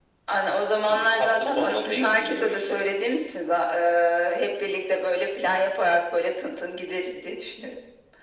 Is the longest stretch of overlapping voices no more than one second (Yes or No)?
No